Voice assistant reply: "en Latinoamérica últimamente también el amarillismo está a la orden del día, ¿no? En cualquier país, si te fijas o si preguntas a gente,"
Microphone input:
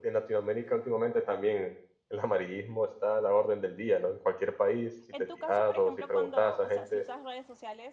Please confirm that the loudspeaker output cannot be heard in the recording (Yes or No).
No